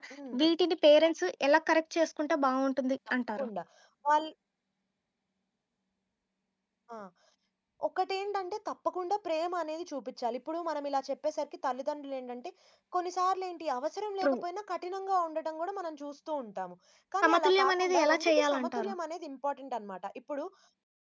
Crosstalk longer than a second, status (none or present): present